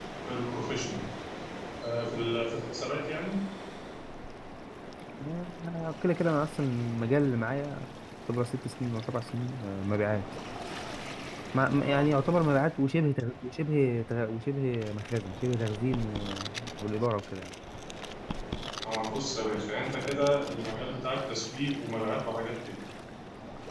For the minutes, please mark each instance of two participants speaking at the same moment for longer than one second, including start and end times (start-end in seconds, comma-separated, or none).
none